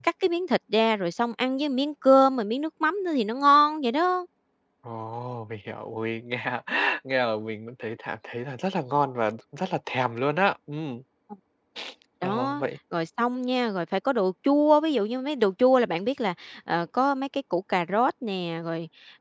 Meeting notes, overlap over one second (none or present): none